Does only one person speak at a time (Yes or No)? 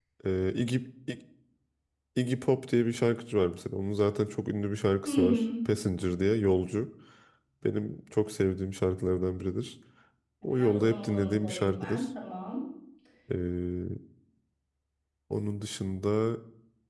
No